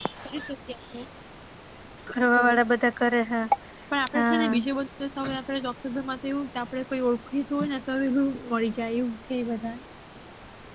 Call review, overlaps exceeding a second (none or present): none